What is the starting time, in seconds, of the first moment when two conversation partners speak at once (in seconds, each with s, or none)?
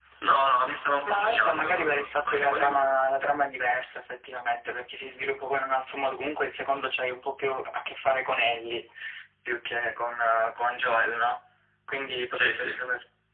1.1 s